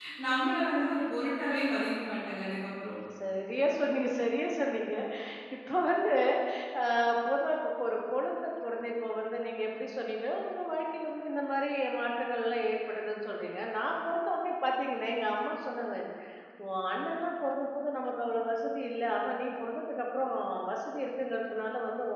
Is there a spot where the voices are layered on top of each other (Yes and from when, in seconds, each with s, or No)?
No